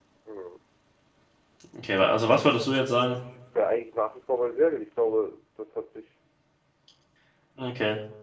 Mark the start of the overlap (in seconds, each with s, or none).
none